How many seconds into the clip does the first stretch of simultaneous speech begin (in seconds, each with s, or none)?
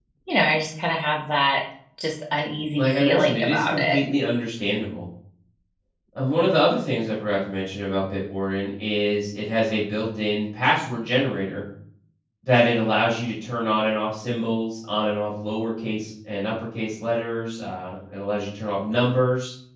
2.8 s